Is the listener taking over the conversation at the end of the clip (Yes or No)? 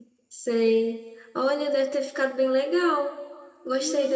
Yes